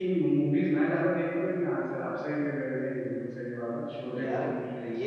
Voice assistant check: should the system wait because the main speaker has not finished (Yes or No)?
No